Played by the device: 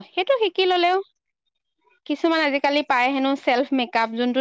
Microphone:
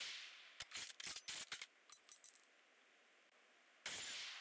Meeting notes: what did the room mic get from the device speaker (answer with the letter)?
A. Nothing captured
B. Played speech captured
A